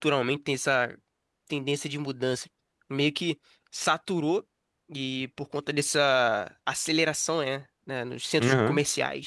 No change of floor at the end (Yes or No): Yes